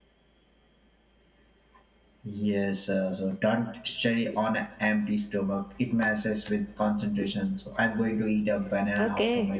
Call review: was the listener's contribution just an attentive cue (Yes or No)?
No